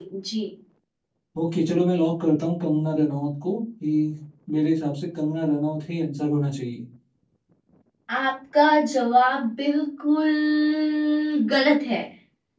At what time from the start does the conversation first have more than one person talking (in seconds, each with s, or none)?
none